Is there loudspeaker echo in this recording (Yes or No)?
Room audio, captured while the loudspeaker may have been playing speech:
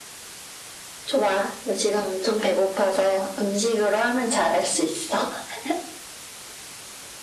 Yes